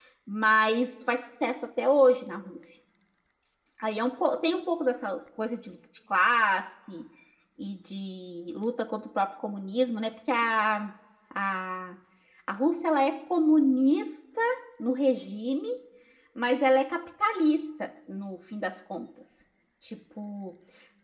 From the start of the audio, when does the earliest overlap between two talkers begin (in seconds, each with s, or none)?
none